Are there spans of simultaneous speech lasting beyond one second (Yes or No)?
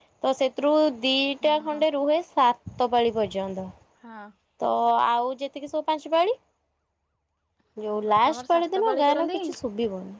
Yes